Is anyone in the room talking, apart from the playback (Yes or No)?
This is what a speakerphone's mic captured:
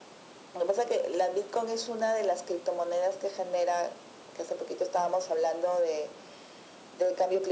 No